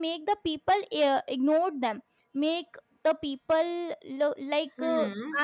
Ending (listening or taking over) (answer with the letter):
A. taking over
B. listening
B